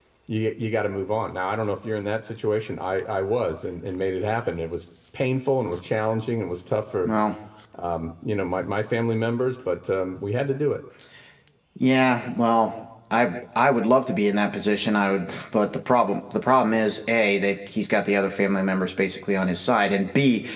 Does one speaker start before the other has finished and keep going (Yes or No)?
No